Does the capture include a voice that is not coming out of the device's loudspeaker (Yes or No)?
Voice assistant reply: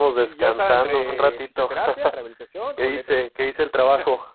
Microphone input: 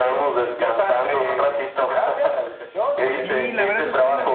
Yes